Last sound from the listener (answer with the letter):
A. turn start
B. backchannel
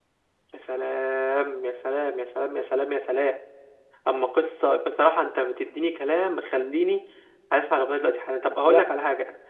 B